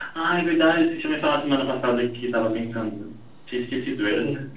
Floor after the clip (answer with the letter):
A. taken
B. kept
A